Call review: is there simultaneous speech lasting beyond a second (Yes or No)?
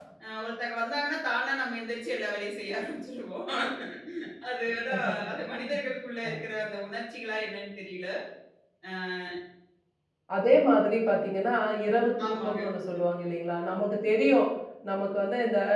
No